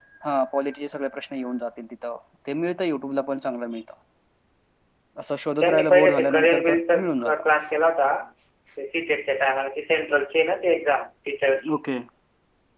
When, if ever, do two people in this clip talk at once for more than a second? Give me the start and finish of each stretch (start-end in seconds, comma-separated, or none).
5.6-7.4